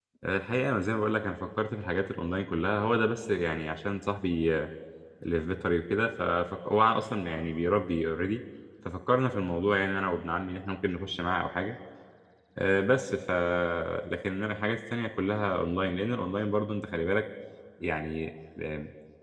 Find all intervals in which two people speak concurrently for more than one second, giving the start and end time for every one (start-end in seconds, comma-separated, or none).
none